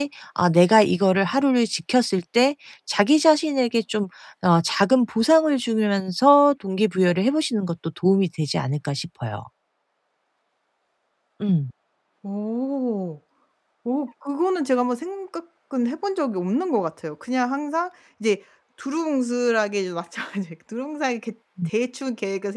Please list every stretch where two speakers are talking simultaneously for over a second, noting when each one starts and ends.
none

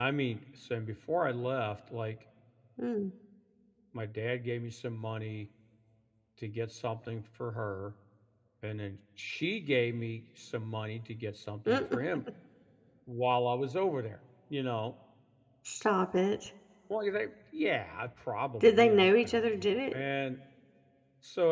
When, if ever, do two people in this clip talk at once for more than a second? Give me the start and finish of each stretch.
18.6-20.0

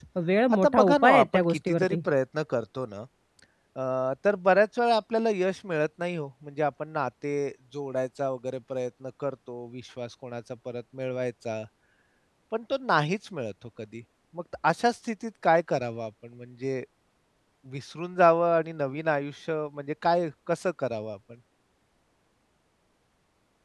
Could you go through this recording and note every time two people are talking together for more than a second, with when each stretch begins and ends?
0.5-2.0

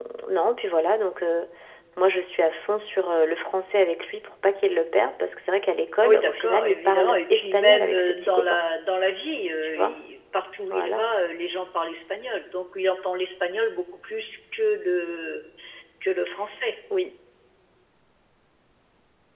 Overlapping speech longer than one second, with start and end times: 6.0-8.6

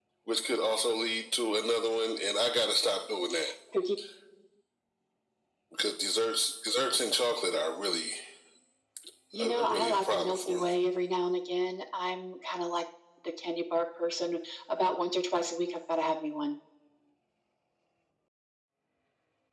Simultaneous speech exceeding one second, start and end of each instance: 9.4-10.7

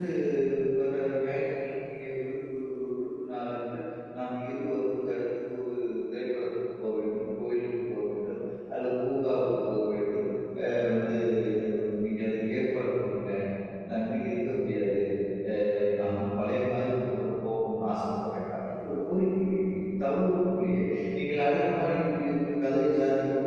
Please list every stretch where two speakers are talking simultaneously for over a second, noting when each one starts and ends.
none

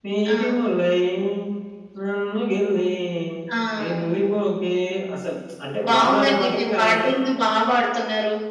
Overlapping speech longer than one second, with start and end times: 5.9-7.1

